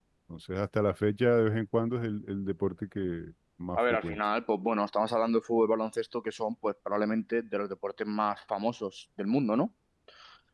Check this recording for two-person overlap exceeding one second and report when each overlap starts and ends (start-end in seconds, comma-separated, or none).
none